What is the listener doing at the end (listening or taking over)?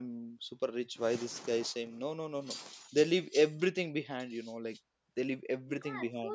taking over